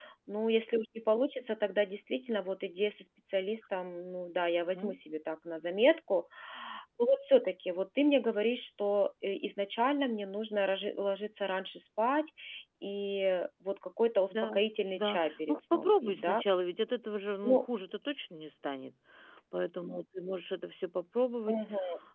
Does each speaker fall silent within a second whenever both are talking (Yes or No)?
No